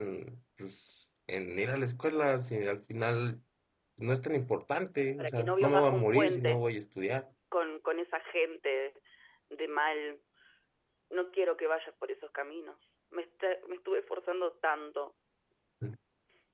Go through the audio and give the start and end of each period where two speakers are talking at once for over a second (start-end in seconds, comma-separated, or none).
5.2-6.6